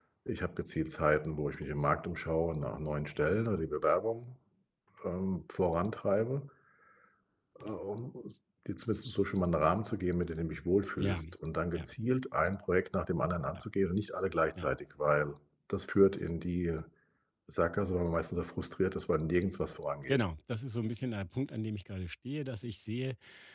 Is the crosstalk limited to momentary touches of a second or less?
Yes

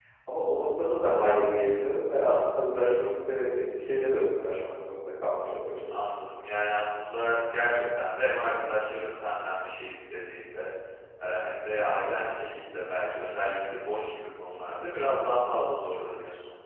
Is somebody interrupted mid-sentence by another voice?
No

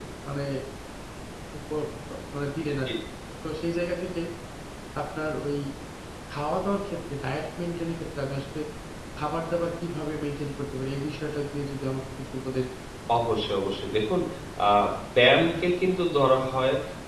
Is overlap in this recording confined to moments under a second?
Yes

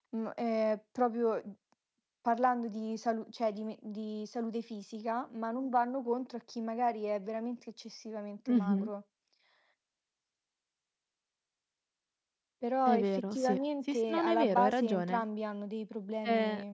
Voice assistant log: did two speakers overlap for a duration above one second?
Yes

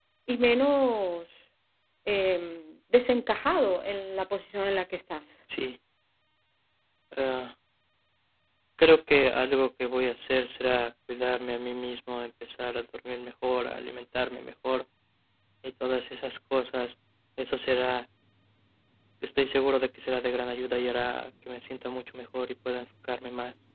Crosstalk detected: No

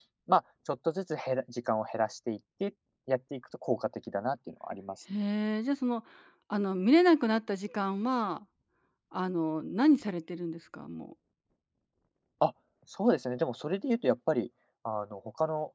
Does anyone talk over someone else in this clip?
No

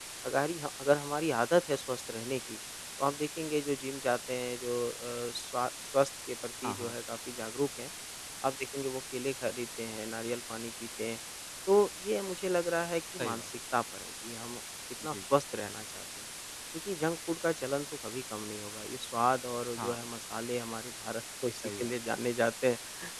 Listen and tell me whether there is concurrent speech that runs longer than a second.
No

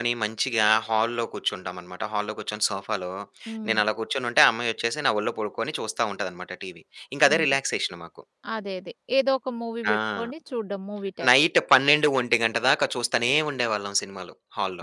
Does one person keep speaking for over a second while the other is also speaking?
No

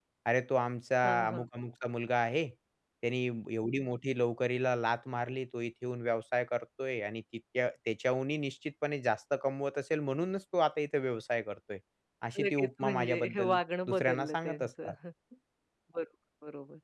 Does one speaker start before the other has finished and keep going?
Yes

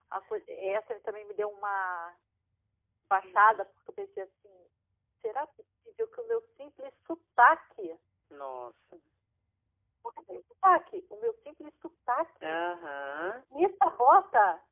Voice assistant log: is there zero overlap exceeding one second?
Yes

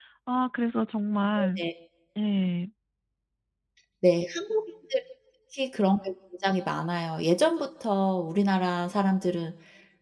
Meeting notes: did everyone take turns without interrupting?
Yes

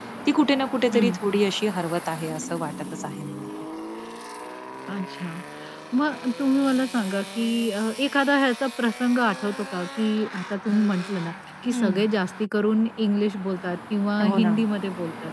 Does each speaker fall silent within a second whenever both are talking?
Yes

